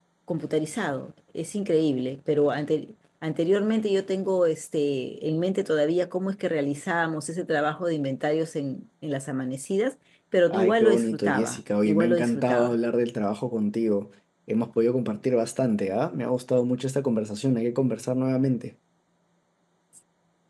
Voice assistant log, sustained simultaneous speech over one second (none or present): present